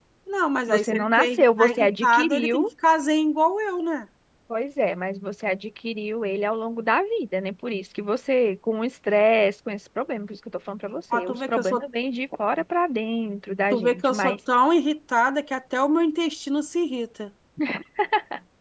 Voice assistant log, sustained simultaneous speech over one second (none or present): present